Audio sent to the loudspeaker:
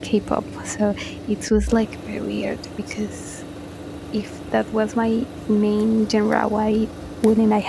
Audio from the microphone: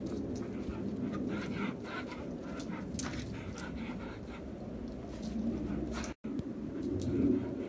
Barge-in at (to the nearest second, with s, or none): none